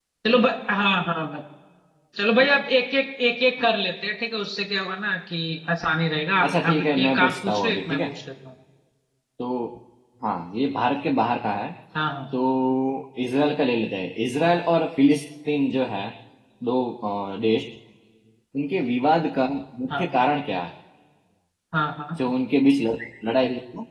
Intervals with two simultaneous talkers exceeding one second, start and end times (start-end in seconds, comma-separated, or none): 6.4-8.1